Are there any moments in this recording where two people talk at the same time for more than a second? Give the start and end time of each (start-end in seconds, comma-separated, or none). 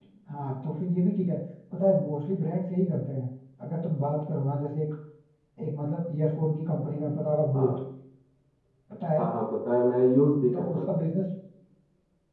none